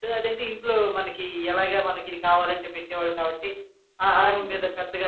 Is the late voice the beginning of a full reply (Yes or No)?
No